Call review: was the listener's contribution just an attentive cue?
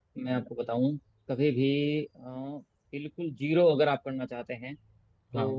Yes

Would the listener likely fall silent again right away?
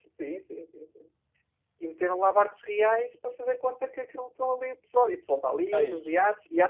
Yes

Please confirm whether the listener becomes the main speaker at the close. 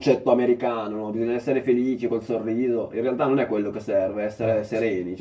No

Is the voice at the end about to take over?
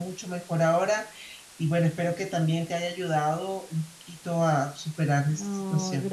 Yes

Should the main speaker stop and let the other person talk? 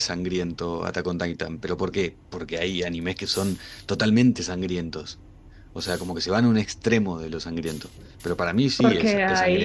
Yes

